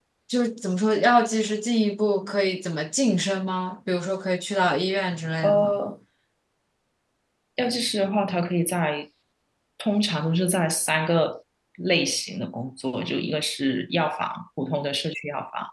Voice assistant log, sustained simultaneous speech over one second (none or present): none